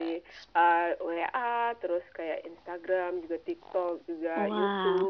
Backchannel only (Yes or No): Yes